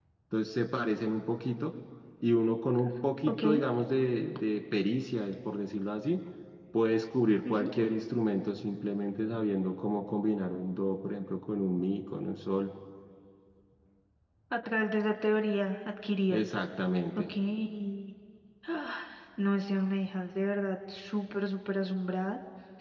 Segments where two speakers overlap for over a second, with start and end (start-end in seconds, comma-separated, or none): none